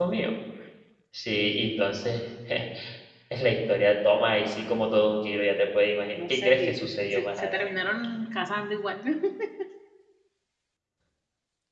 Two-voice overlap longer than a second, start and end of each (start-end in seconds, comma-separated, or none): 6.3-7.7